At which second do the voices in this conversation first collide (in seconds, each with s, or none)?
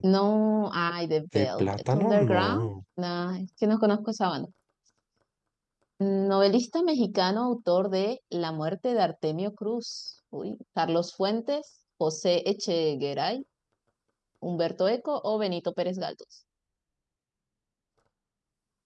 1.3 s